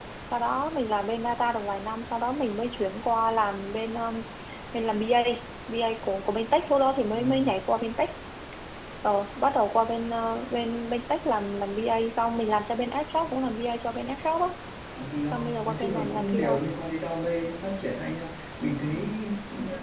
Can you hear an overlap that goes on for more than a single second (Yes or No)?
Yes